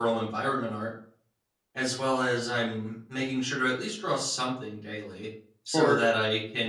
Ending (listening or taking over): listening